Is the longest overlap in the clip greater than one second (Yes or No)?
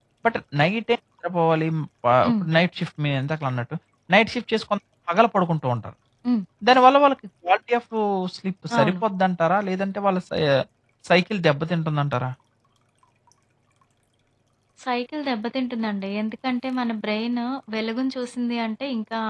No